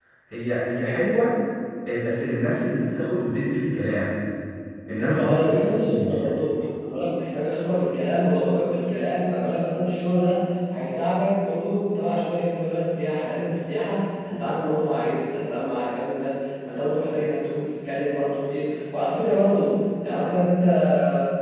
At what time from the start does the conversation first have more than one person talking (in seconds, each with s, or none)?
5.0 s